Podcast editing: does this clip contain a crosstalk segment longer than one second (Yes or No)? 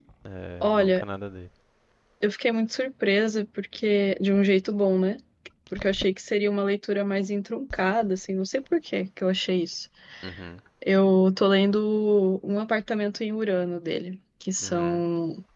No